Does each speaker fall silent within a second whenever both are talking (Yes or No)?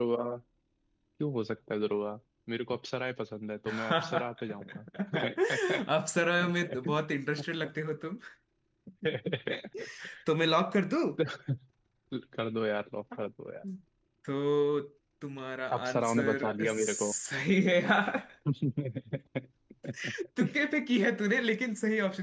No